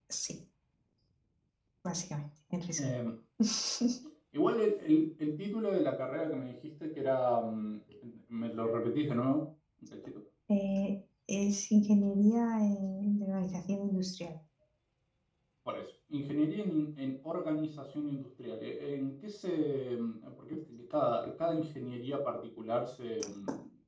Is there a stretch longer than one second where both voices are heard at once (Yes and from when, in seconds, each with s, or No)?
No